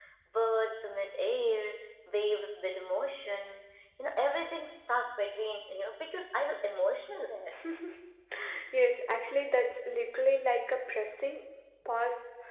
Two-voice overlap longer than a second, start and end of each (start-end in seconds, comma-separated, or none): none